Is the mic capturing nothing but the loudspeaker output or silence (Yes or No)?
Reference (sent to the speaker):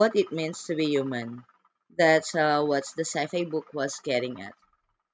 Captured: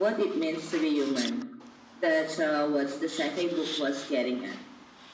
Yes